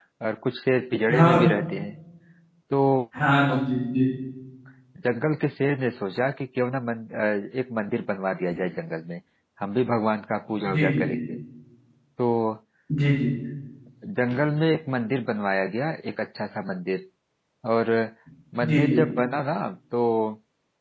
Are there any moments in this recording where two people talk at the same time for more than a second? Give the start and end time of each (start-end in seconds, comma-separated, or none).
none